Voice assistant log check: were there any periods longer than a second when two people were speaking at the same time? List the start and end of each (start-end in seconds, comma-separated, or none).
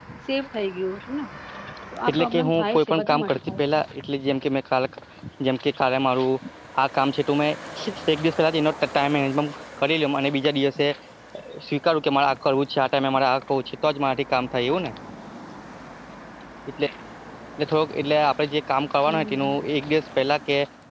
2.1-3.8